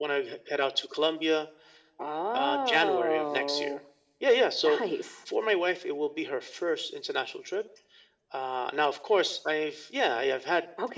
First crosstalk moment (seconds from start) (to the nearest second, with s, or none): 2 s